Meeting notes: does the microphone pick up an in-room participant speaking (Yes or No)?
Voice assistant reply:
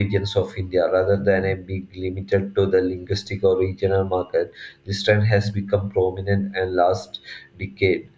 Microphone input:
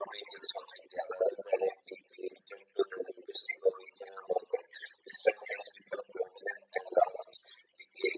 No